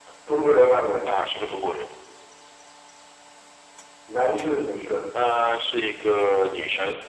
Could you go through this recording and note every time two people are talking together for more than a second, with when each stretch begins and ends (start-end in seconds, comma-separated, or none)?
none